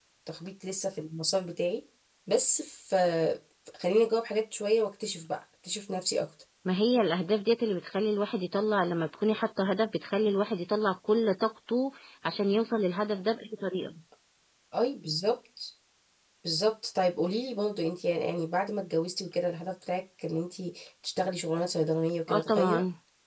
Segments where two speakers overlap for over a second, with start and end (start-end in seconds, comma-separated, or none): none